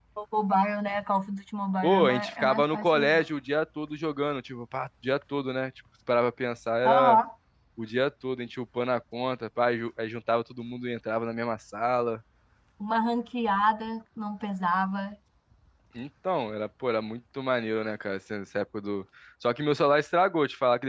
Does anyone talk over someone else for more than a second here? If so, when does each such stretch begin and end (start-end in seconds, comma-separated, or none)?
1.8-3.2